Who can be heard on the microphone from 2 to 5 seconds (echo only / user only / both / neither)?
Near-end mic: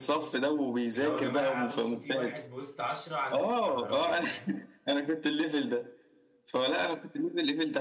both